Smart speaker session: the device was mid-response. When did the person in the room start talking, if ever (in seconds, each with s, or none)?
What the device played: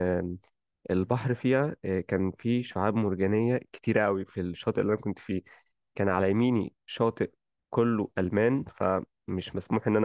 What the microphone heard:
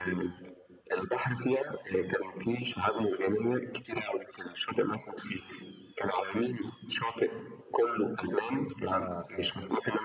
9.0 s